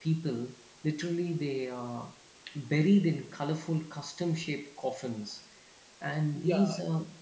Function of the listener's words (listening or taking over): listening